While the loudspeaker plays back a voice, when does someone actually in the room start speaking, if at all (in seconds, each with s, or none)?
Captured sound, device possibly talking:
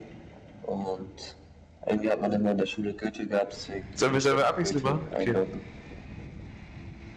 3.9 s